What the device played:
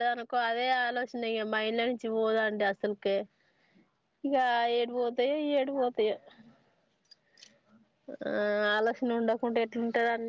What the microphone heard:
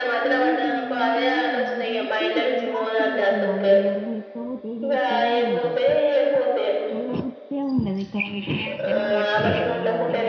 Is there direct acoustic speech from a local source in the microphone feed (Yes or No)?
Yes